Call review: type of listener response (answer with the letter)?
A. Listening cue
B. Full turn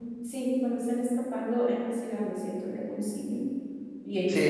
B